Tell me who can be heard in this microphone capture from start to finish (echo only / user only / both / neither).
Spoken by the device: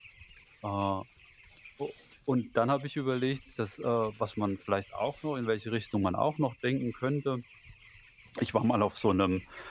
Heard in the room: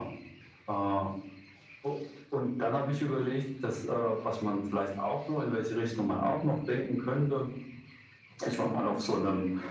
echo only